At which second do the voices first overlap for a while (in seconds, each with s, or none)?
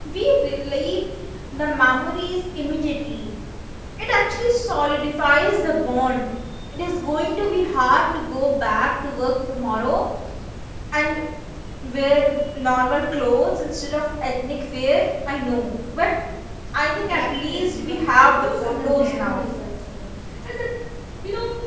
17.0 s